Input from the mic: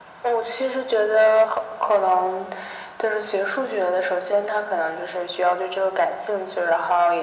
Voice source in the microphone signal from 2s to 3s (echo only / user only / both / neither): echo only